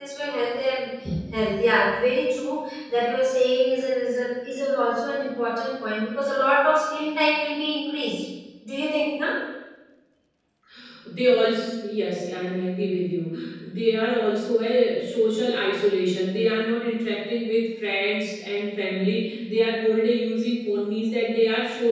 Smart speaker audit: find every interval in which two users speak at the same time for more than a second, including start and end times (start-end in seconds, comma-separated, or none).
none